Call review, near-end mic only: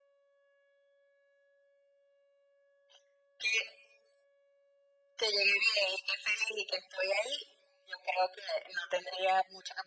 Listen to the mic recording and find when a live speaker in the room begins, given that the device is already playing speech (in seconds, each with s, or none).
none